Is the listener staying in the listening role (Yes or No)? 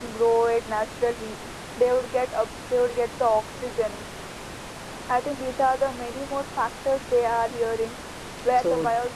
Yes